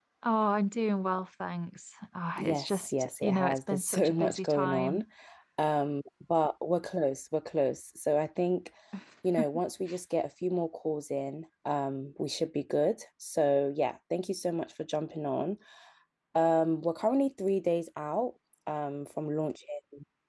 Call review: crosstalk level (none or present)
present